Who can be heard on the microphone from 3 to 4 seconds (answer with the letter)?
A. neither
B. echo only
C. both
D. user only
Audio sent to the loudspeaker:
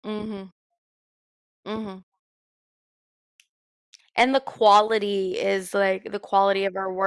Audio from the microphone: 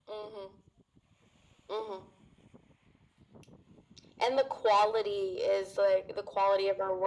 A